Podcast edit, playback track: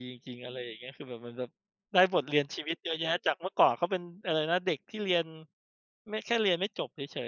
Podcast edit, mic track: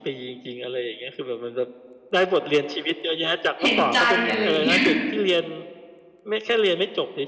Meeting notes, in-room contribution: present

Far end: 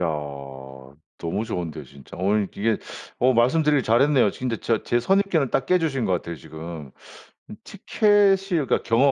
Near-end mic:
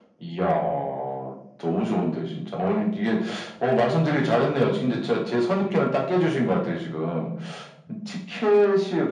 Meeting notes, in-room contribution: none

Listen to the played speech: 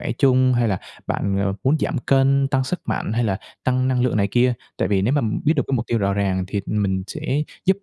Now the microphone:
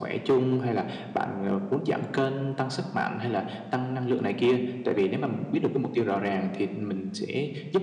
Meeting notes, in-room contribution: none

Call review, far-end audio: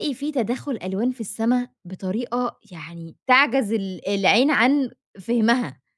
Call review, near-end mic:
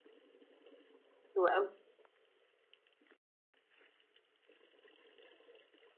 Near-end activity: present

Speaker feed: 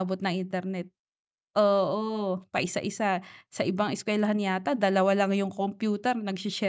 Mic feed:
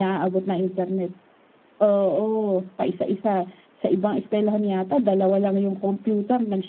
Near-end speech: none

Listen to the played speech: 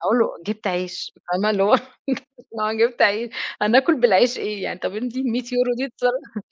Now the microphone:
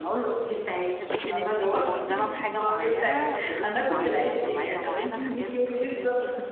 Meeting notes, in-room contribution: present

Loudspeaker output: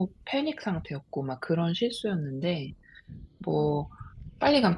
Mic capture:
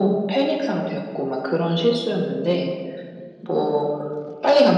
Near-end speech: none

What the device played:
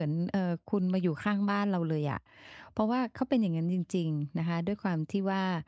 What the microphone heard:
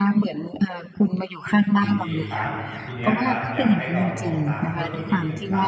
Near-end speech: present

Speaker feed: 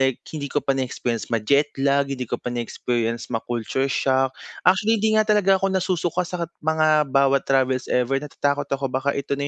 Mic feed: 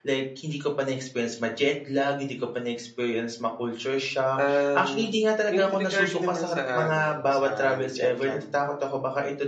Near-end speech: present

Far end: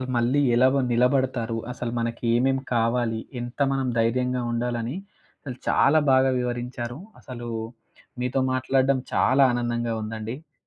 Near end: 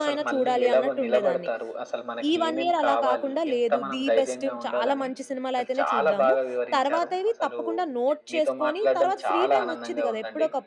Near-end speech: present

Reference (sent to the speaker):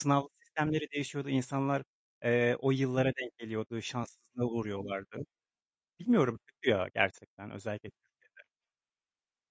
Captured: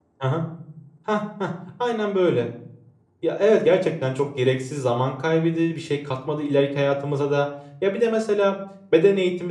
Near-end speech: present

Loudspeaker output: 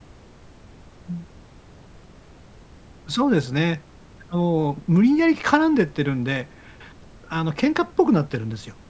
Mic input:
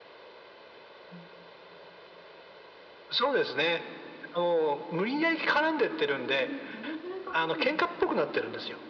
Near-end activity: present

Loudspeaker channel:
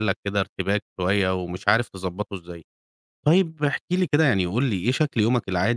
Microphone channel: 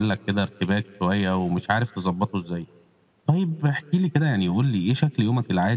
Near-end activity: none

